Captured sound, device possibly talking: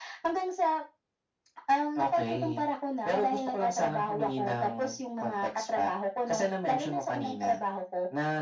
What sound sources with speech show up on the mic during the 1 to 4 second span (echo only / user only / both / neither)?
echo only